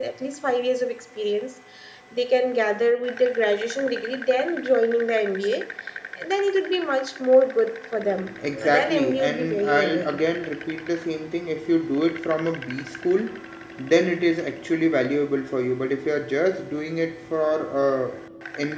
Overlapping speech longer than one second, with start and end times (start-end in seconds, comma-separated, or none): 8.5-10.2